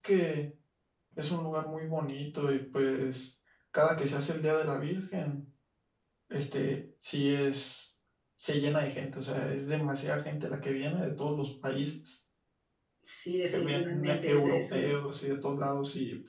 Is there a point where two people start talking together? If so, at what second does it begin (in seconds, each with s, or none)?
13.5 s